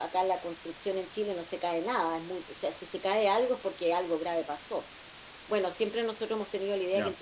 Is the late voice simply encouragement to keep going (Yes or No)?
Yes